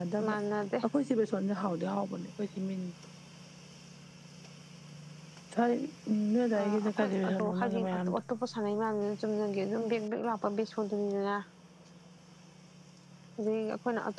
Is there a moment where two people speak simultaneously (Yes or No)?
Yes